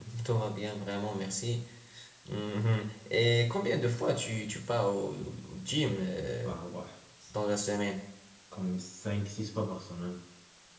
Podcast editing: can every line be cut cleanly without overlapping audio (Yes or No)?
Yes